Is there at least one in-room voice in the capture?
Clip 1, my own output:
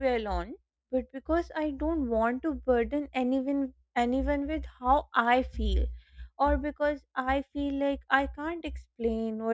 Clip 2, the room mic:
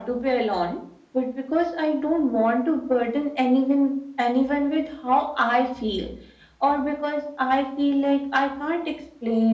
No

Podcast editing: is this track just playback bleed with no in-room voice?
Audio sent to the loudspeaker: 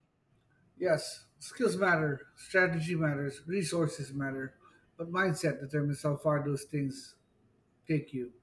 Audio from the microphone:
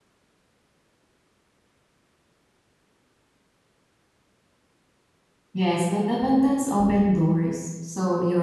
No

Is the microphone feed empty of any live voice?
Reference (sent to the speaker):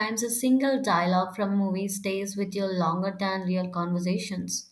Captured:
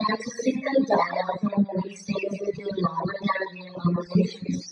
Yes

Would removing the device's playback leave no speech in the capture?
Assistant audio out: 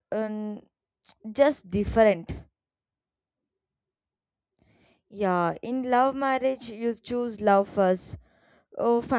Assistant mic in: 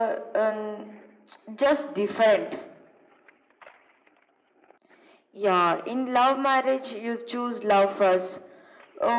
Yes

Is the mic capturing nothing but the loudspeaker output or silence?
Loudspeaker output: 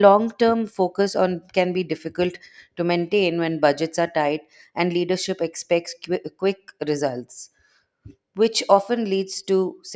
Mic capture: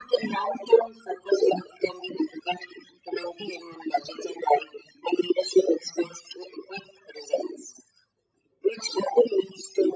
Yes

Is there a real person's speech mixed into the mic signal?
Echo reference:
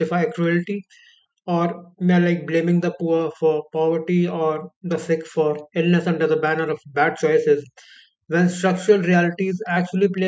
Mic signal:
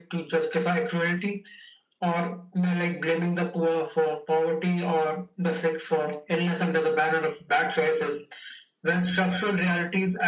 No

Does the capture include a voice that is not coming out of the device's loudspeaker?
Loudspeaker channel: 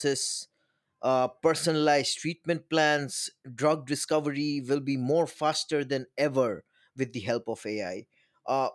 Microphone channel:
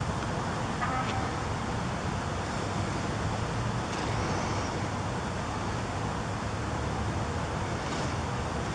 No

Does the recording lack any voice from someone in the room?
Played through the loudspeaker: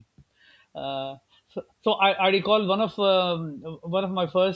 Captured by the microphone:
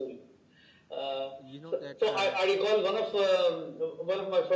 No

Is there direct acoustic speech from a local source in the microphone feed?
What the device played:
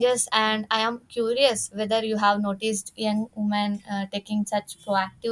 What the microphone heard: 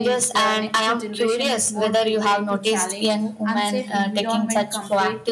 Yes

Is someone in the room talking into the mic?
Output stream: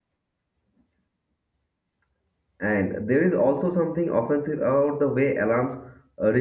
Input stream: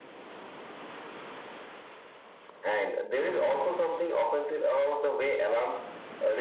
No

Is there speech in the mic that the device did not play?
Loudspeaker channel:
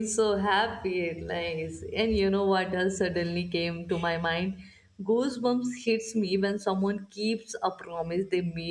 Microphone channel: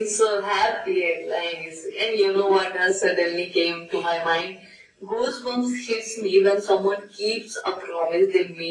No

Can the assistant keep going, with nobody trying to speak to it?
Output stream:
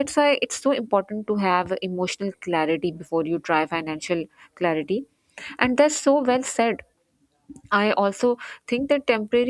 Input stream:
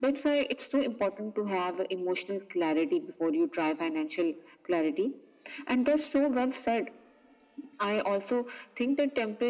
Yes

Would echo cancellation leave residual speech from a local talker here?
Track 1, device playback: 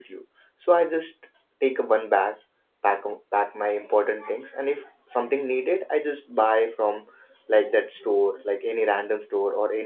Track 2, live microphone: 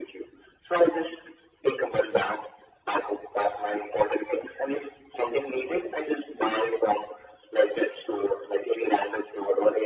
No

